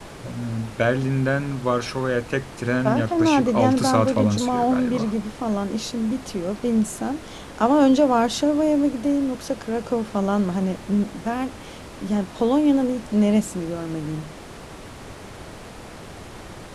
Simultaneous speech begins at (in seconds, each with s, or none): 2.9 s